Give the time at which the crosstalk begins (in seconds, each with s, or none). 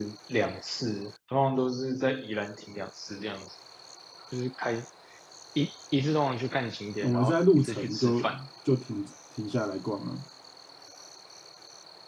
7.0 s